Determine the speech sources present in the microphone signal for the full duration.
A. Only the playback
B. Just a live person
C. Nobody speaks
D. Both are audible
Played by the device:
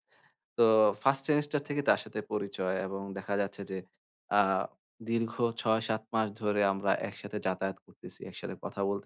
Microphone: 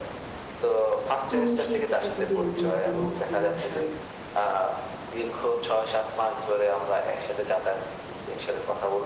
D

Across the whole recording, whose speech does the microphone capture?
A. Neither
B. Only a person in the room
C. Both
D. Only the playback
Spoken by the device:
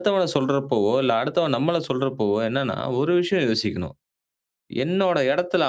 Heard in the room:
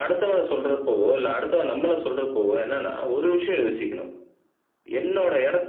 D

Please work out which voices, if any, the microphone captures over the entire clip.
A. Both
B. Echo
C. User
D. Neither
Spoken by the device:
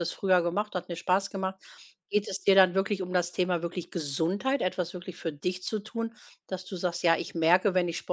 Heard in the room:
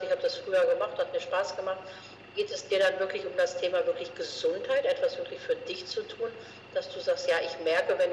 B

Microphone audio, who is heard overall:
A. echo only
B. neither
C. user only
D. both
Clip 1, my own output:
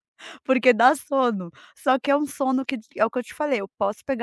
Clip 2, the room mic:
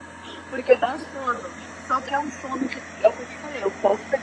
A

